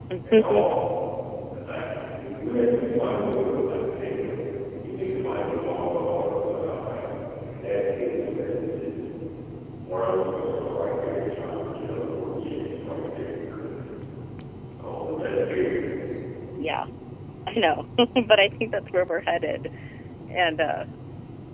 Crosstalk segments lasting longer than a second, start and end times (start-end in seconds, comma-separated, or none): none